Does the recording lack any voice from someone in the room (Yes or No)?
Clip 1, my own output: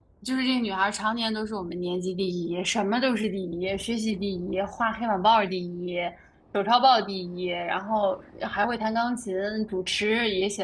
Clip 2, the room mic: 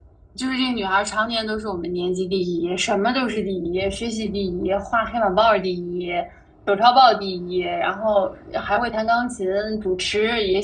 Yes